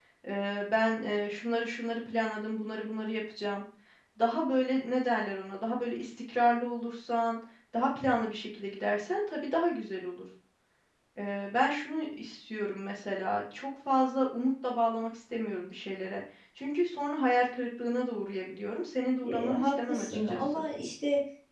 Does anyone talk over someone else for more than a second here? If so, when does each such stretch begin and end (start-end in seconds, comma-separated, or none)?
19.2-20.6